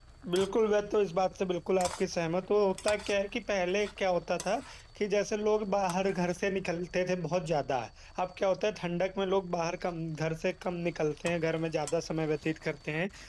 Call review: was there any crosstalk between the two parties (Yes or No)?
No